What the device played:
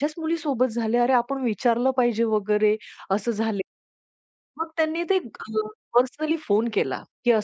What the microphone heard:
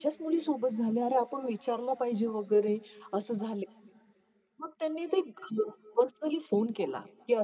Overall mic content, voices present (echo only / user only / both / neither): echo only